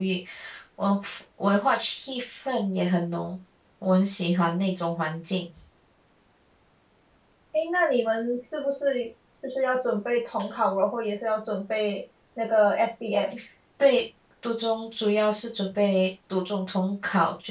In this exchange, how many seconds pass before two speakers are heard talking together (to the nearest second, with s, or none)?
none